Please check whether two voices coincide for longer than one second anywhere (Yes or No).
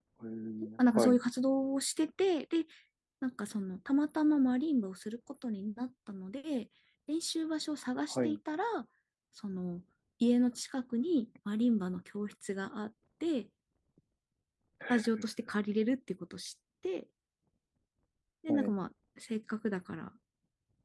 No